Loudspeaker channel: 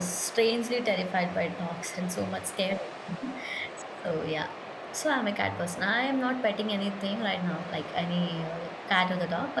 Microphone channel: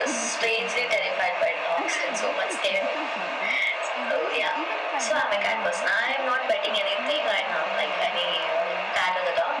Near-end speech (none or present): present